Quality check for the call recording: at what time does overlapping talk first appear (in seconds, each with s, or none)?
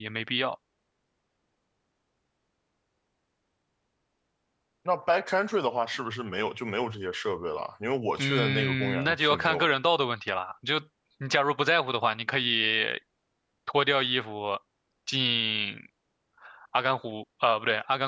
8.2 s